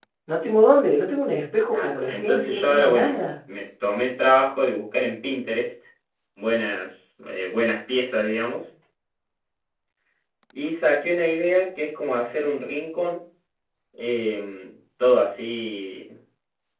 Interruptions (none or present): present